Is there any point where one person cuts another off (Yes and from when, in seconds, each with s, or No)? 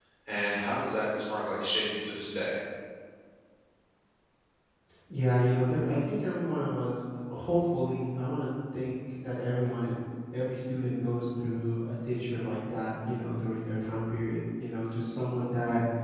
No